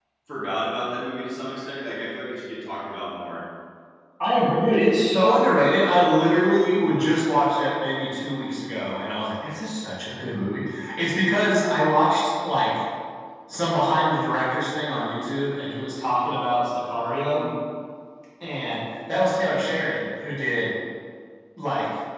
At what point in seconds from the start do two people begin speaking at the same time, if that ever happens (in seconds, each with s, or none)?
none